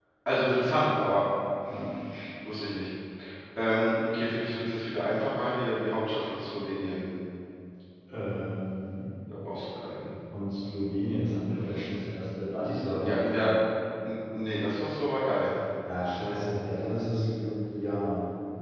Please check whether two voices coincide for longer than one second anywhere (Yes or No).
No